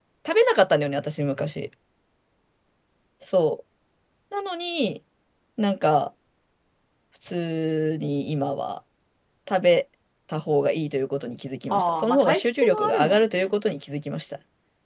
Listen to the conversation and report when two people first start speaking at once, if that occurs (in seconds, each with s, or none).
11.7 s